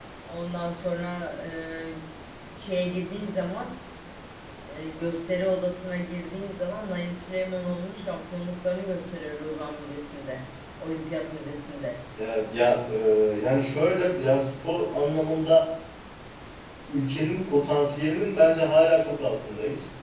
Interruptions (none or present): none